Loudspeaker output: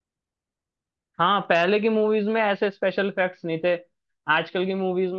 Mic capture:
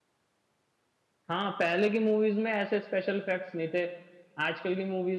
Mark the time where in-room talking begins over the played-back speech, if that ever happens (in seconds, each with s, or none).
none